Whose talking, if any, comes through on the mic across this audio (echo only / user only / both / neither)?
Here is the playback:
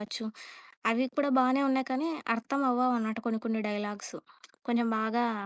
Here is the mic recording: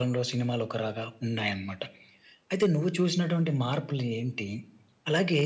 user only